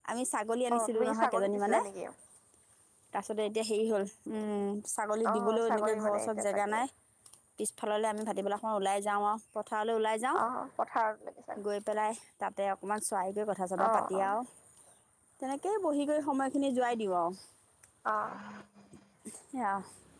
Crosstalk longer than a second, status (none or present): present